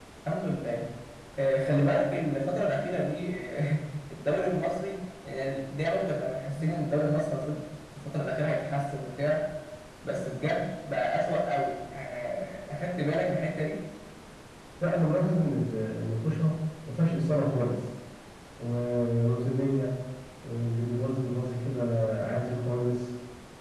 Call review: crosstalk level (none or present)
none